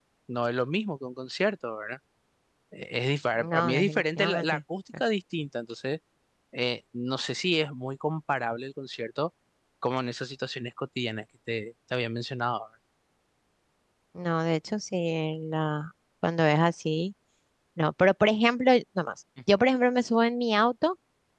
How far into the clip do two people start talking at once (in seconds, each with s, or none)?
3.4 s